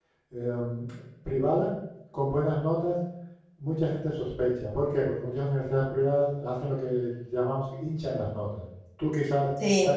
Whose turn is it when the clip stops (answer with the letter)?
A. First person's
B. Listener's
A